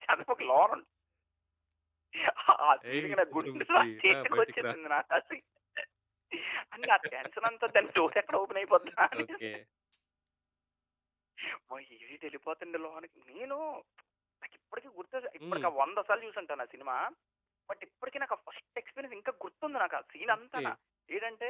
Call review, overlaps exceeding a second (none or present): present